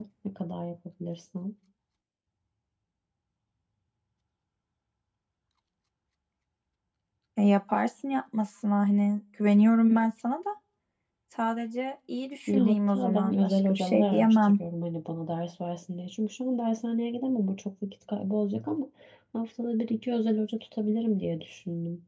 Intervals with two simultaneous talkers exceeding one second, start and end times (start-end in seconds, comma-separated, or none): 12.5-14.5